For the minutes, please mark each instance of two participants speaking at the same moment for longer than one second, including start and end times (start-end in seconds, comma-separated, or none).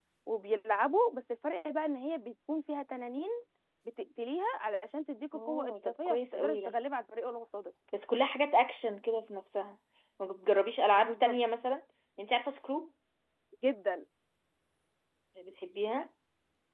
5.3-6.8